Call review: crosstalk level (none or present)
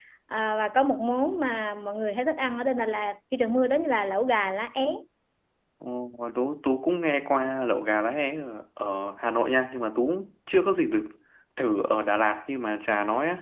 none